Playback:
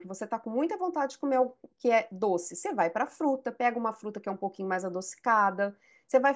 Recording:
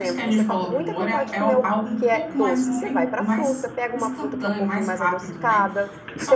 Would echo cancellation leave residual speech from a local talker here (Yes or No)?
Yes